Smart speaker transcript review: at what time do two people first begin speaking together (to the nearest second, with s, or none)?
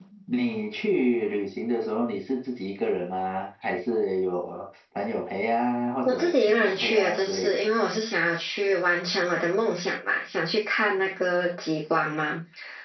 6 s